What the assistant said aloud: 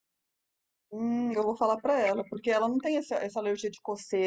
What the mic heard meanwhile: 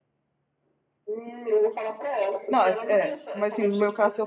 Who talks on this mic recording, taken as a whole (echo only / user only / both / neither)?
both